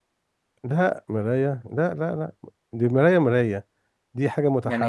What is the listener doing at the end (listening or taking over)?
listening